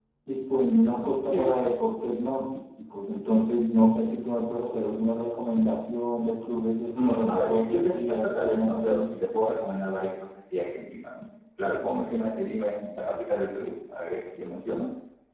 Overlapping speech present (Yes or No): Yes